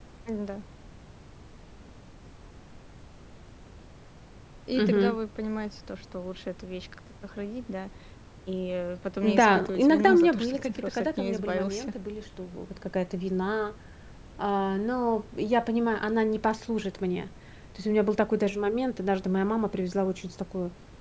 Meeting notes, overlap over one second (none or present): present